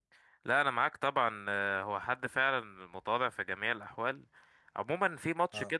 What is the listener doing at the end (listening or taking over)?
listening